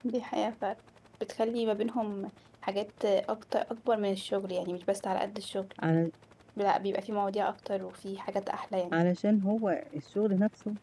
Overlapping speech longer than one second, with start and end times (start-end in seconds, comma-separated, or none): none